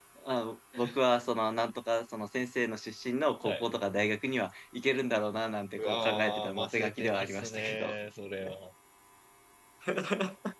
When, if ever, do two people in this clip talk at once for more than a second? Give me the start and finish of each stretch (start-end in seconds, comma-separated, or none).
5.8-7.9